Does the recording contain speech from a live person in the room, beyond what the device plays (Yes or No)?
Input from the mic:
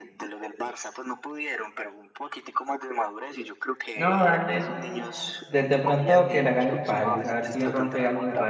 Yes